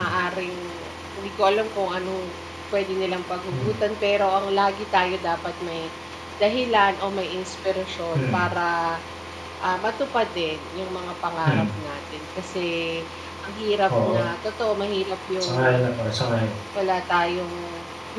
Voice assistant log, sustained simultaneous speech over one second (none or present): none